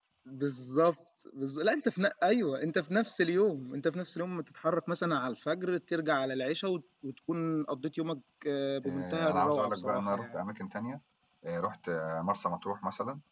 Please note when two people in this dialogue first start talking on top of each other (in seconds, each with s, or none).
8.8 s